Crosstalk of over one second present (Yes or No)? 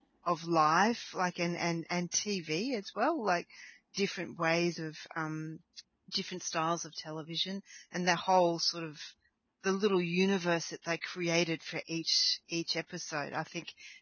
No